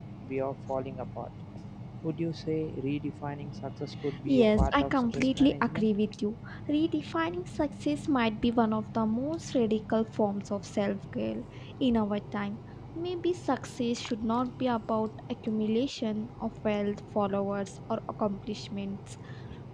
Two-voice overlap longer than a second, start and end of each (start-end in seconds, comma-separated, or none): 4.3-5.9